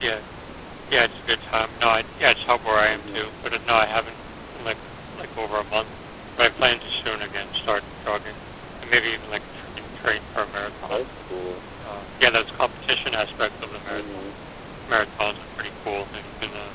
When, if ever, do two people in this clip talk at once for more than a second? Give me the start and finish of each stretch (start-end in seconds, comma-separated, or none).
none